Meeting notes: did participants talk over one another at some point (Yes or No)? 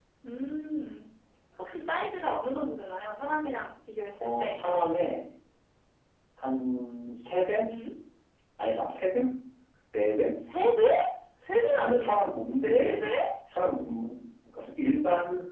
Yes